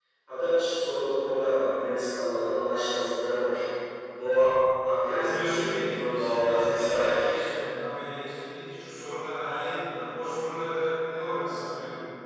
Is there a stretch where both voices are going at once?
Yes, from 5.0 s

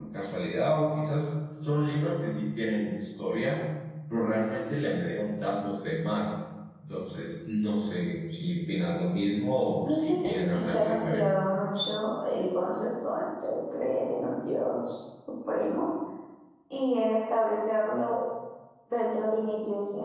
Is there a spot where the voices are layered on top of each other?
Yes, from 9.8 s

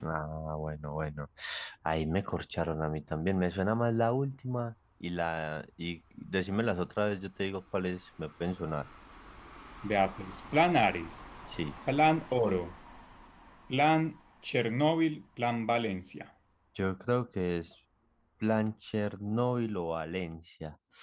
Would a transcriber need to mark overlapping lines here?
No

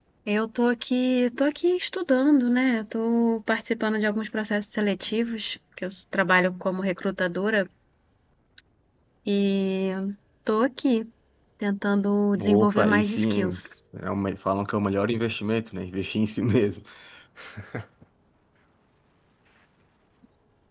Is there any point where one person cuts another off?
Yes, from 12.4 s

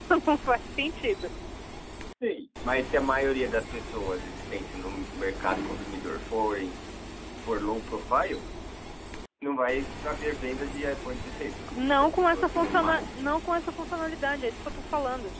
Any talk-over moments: Yes, from 11.7 s

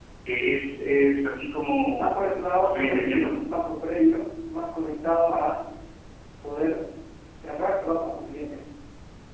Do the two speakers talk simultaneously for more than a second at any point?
Yes, from 2.0 s

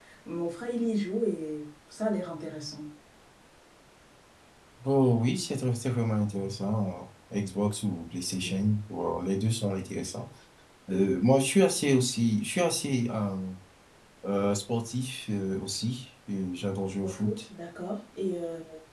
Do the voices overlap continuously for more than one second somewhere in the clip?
No

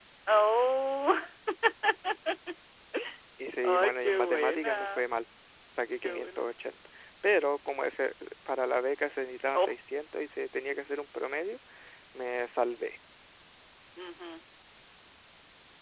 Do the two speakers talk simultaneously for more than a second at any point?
Yes, from 3.6 s

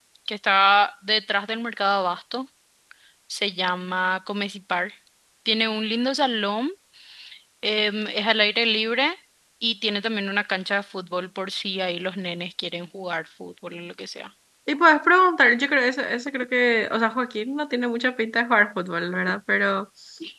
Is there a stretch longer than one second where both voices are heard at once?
No

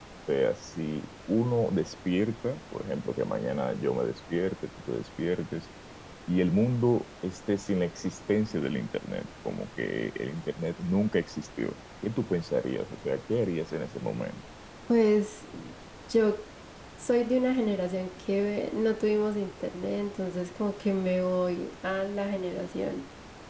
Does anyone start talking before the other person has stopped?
No

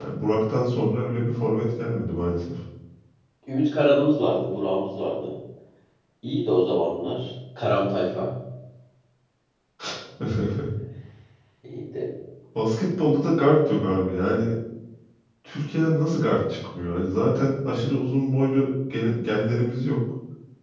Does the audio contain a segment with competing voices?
No

